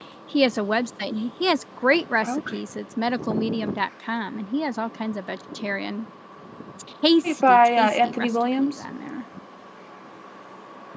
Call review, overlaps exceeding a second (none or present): present